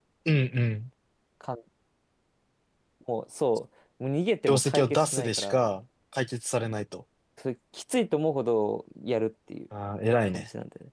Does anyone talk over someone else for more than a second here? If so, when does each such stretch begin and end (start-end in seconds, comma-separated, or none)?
4.5-5.7